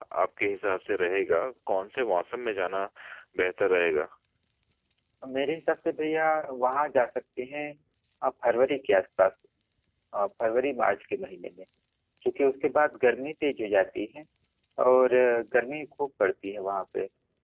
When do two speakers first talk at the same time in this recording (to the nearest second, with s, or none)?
none